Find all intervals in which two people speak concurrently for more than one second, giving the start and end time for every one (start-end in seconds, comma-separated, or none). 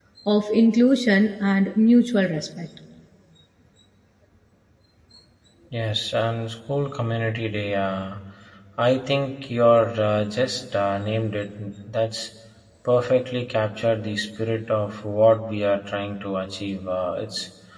none